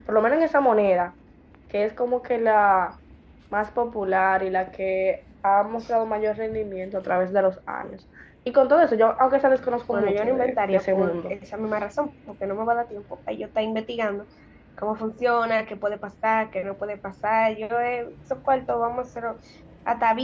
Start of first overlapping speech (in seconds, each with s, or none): 9.9 s